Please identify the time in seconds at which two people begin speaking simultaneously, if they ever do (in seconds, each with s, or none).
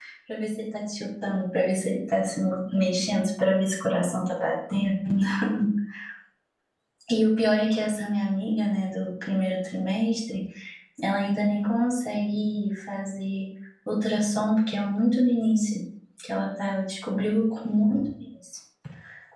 none